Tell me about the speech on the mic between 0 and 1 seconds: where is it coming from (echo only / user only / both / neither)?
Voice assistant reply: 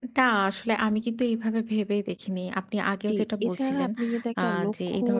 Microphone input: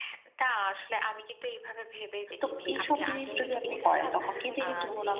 echo only